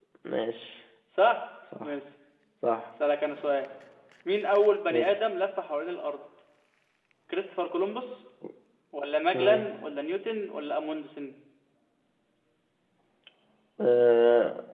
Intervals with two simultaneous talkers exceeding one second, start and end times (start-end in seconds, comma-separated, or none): none